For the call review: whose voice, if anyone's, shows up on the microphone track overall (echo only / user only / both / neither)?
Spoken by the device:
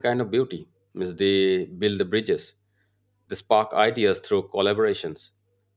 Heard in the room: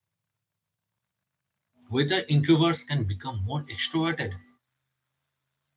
user only